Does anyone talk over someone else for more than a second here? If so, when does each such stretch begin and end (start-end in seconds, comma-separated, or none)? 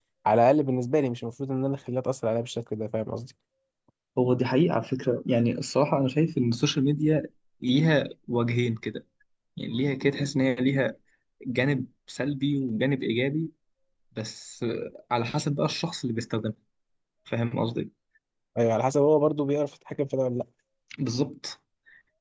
none